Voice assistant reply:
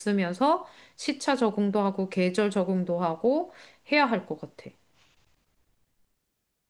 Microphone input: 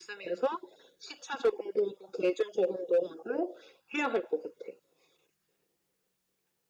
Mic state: echo only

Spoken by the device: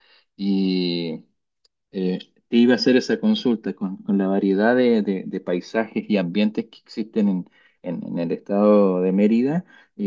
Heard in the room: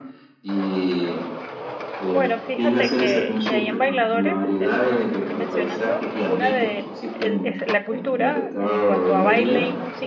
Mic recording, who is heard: both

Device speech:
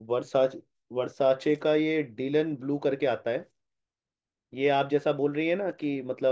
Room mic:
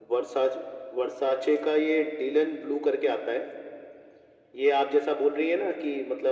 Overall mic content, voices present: echo only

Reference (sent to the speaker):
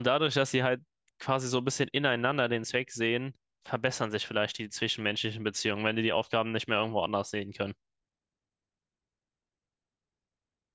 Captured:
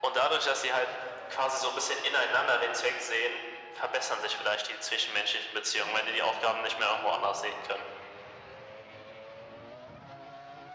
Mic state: echo only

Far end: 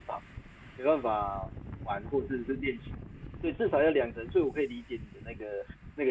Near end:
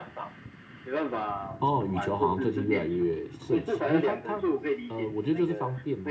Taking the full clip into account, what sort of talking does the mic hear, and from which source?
both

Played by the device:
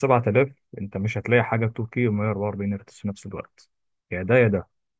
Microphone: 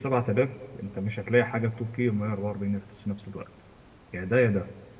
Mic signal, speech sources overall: echo only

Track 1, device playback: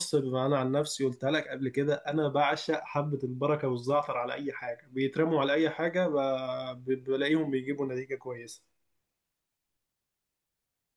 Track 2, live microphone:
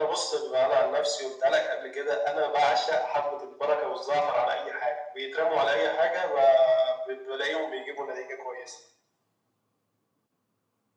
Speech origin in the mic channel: echo only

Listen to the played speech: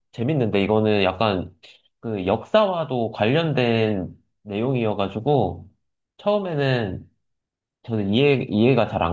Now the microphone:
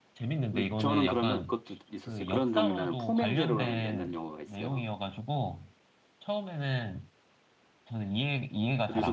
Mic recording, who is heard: both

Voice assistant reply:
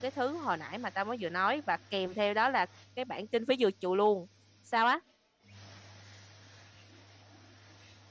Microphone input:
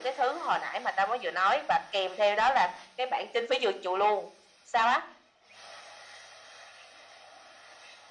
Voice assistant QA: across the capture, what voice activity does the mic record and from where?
echo only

